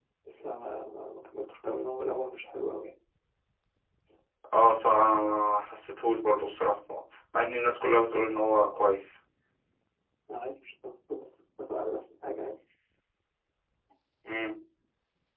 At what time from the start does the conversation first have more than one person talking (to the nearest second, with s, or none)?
none